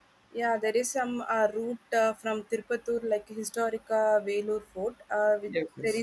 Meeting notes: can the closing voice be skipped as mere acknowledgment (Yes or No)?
Yes